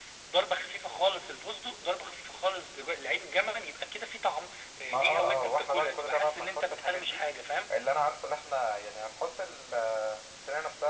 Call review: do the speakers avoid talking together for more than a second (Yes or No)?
No